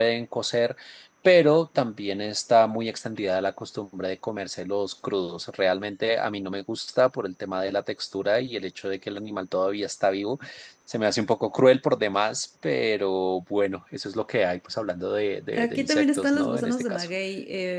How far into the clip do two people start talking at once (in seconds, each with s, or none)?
15.5 s